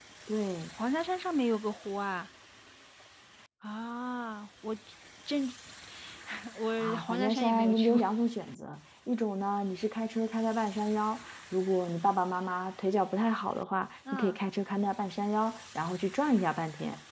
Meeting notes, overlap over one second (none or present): present